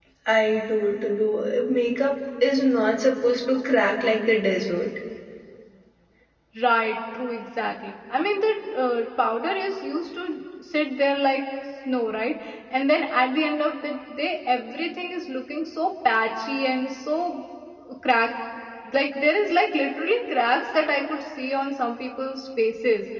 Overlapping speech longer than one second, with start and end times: none

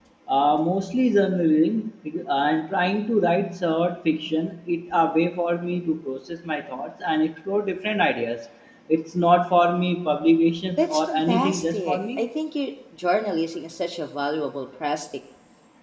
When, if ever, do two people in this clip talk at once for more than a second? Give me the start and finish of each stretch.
10.8-12.2

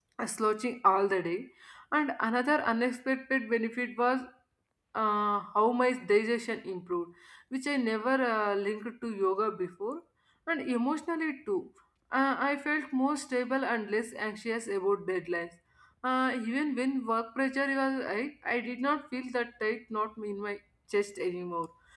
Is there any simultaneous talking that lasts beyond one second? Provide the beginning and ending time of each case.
none

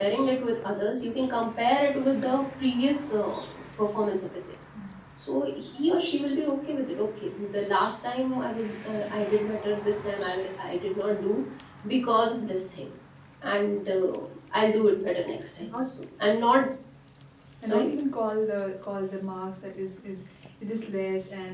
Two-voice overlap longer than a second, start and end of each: none

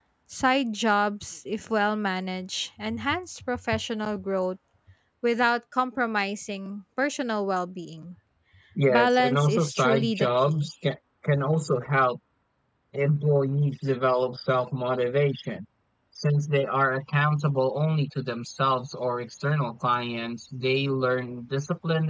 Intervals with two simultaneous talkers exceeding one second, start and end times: 8.9-10.7

